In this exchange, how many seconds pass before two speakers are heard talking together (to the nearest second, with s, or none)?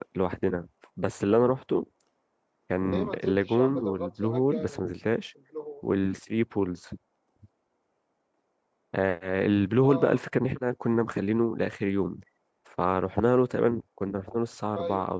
3 s